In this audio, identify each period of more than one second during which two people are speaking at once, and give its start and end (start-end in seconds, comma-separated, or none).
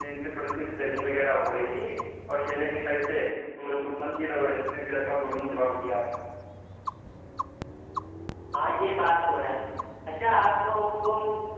none